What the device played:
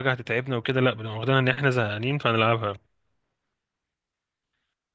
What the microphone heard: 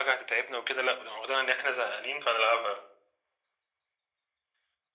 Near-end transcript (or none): none